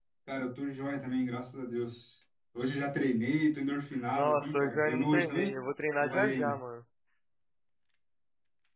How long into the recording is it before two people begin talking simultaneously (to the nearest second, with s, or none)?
4 s